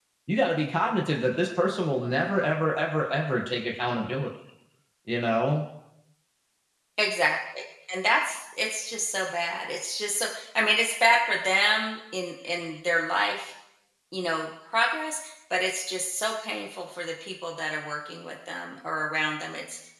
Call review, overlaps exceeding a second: none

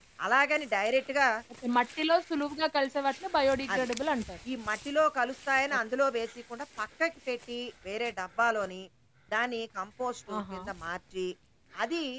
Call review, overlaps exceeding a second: none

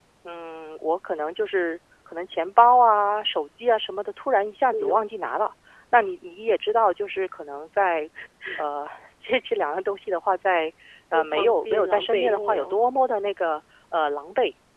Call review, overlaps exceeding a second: present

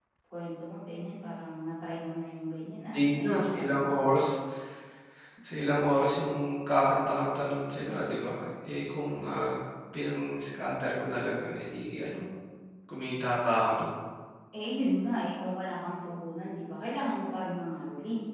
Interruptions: present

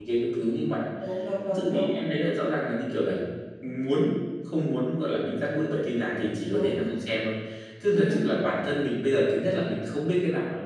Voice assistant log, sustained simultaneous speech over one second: none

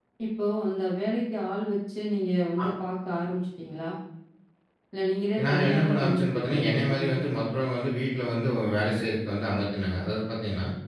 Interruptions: present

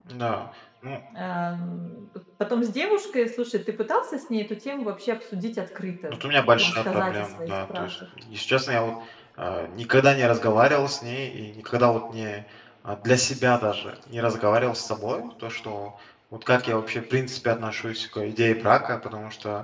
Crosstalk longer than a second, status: present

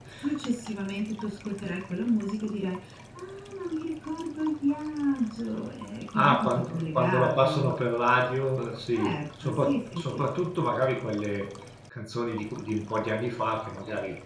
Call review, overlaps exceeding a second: present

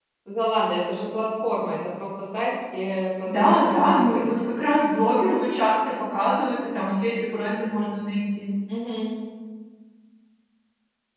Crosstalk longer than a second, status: present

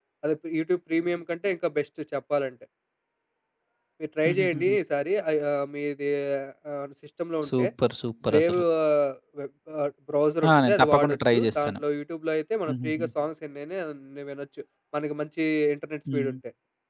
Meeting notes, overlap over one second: present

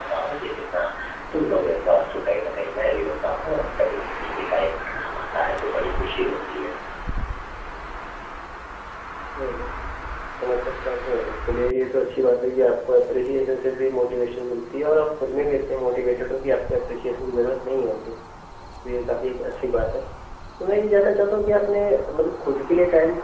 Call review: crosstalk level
none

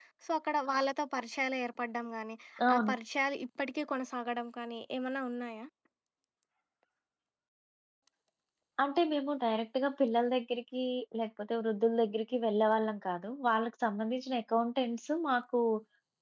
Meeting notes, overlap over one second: none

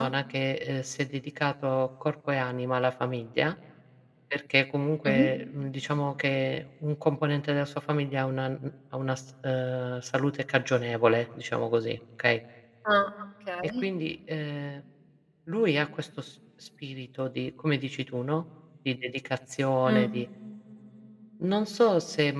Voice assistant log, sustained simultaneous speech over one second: none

